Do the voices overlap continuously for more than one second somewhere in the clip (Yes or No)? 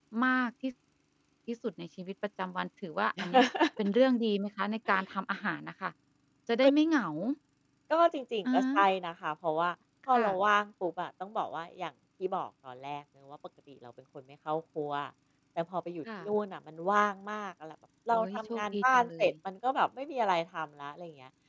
Yes